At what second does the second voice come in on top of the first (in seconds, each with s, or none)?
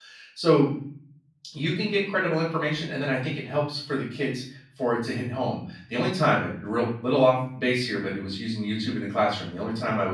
none